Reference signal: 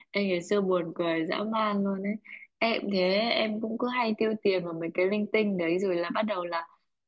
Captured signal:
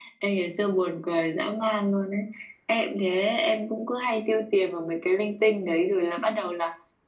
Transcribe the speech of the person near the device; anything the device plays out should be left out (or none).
none